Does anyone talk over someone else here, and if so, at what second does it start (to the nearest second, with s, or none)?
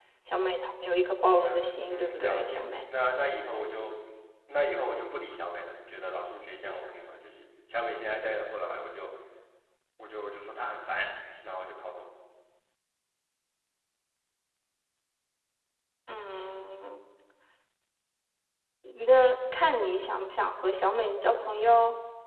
1 s